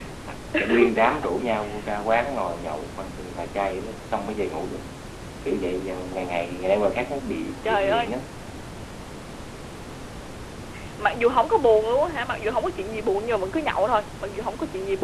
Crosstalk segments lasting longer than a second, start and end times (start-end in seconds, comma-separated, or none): none